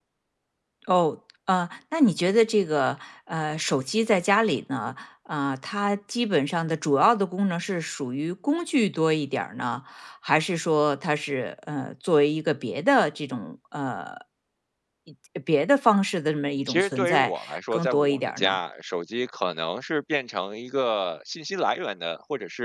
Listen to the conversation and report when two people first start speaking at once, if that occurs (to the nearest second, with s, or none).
17 s